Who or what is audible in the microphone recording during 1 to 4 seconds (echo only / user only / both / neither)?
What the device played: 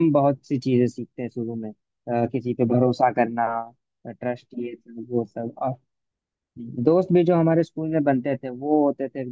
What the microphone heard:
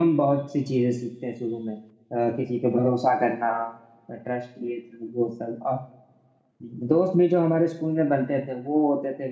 echo only